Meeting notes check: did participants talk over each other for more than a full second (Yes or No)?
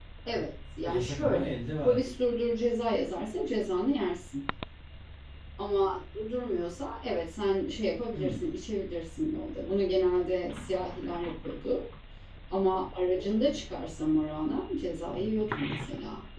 Yes